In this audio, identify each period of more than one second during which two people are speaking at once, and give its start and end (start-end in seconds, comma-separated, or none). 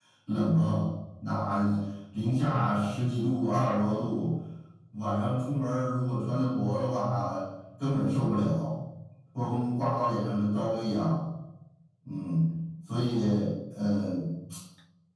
none